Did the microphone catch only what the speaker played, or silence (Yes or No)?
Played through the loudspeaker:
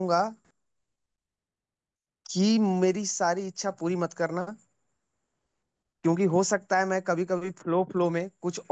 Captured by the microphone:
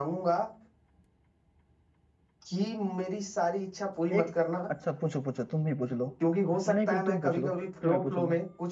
No